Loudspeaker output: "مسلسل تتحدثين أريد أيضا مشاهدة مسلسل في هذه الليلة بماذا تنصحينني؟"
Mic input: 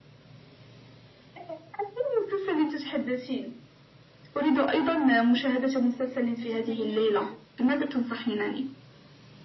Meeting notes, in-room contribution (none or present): present